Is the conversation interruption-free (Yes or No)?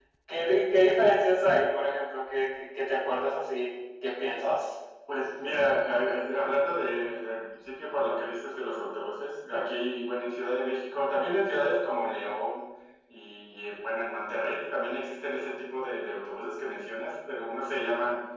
Yes